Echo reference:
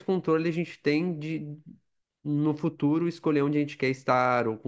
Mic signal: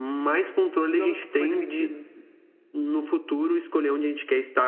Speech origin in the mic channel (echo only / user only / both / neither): both